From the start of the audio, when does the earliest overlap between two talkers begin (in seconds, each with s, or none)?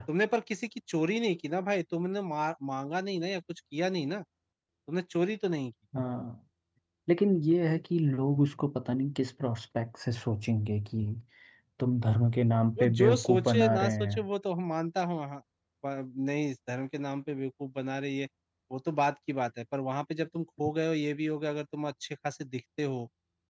12.8 s